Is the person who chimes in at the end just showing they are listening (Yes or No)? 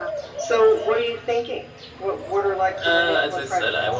No